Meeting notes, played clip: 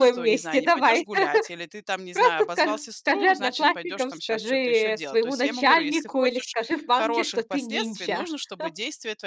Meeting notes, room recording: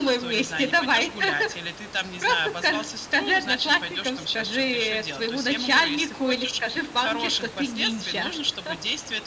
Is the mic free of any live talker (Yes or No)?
Yes